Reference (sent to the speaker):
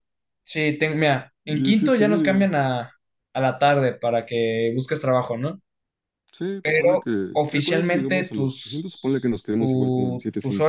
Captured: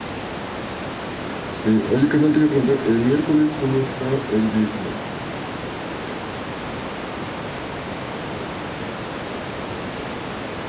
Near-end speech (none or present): present